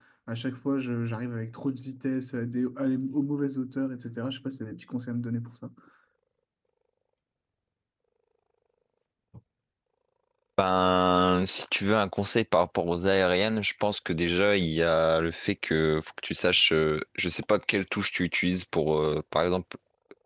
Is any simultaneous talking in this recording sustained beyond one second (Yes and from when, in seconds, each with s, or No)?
No